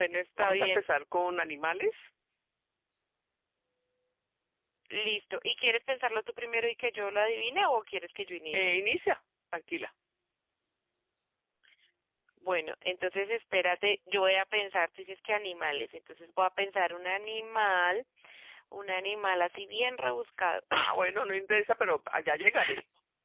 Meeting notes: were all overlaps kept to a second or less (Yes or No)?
Yes